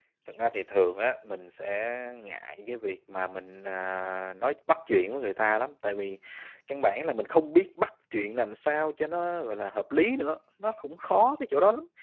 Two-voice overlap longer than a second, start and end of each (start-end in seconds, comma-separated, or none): none